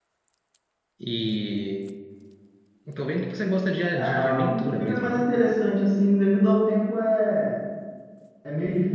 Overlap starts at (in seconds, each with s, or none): 4.0 s